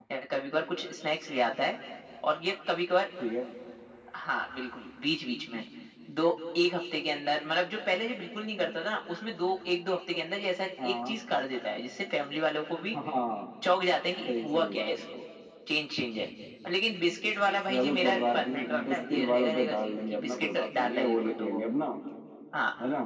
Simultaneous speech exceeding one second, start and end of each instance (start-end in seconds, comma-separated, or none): 17.7-21.6